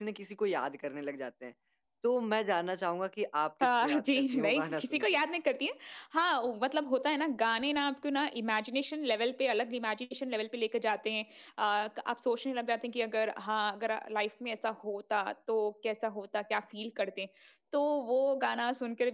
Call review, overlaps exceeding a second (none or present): present